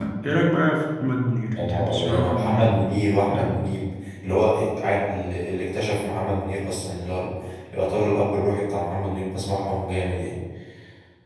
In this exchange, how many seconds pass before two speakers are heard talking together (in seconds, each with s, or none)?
1.6 s